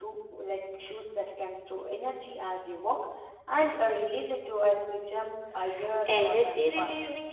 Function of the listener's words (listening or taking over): taking over